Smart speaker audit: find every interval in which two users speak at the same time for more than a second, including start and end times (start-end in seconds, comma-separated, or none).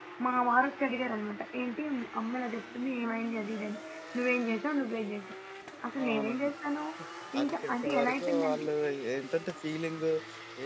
7.4-8.7